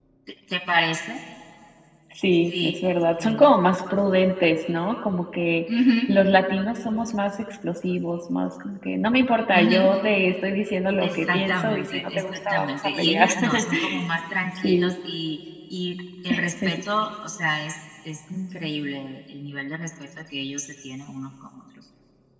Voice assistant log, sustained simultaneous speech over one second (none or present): present